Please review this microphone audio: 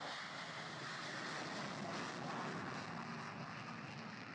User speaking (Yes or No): No